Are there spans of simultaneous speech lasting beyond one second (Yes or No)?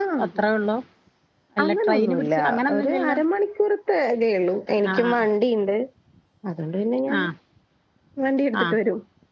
Yes